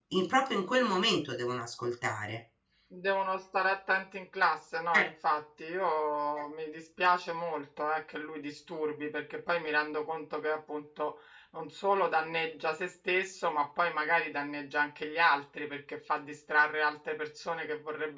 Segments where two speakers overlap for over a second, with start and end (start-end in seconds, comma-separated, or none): none